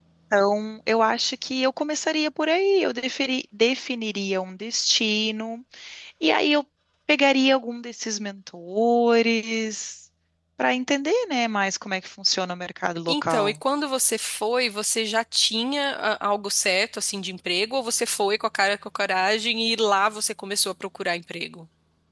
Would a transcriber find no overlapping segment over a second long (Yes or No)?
Yes